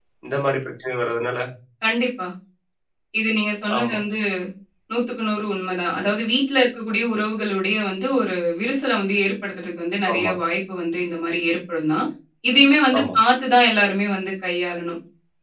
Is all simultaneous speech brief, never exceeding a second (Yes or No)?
Yes